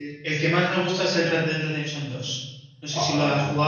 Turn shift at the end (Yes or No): Yes